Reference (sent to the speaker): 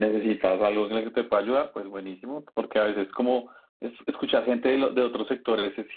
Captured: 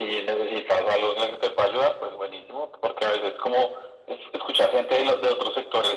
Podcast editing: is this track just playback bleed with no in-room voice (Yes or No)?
Yes